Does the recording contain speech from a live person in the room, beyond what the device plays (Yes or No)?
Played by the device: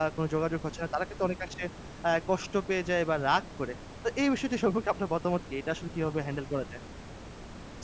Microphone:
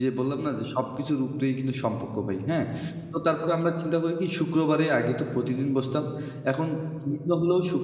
Yes